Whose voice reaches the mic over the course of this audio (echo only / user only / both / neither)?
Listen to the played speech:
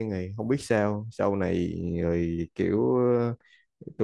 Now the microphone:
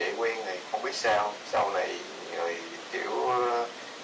echo only